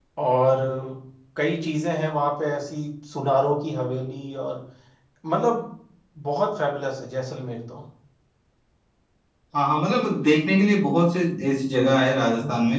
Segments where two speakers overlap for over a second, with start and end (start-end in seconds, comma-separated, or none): none